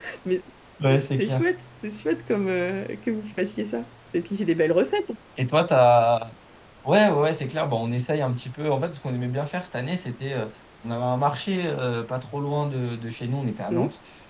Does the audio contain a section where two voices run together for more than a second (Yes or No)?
No